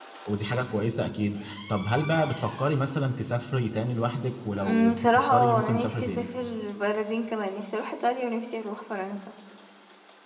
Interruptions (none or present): present